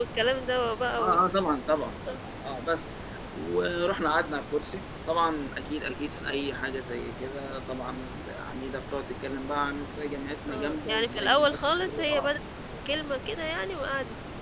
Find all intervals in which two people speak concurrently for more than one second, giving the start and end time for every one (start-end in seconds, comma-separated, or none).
10.5-12.3